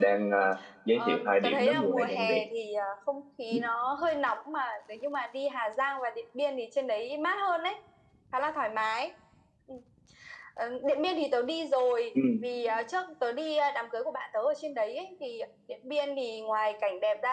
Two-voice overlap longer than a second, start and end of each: 0.9-2.4

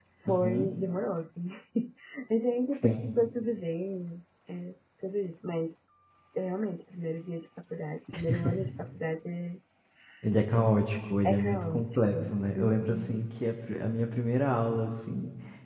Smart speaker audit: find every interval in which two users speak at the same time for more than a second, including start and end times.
11.2-13.1

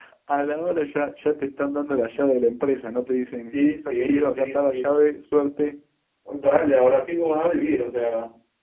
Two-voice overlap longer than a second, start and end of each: 3.5-4.9

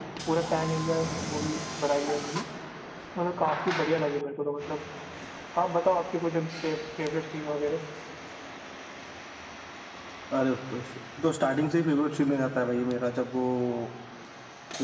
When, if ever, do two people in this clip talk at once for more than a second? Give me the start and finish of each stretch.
none

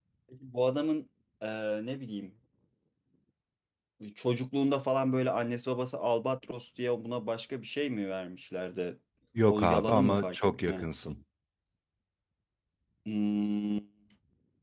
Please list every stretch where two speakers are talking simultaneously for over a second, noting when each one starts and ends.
9.5-10.8

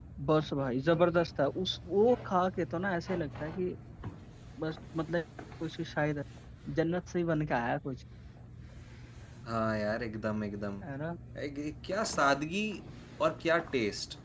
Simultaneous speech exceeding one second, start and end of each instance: none

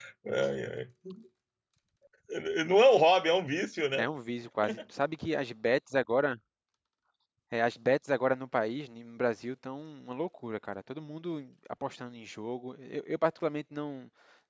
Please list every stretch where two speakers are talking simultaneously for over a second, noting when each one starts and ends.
none

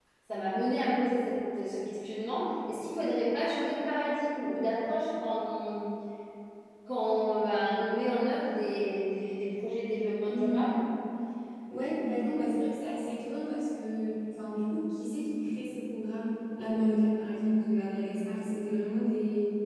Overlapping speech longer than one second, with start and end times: none

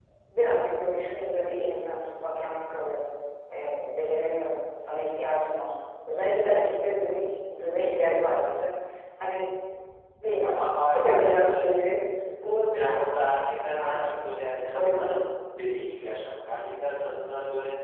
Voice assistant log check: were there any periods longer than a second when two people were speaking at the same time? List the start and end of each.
10.4-11.8

